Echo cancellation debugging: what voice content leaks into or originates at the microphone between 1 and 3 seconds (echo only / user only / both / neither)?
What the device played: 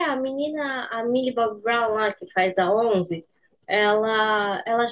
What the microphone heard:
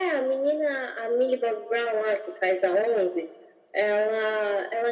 echo only